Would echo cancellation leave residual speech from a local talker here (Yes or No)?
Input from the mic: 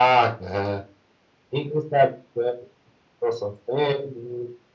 No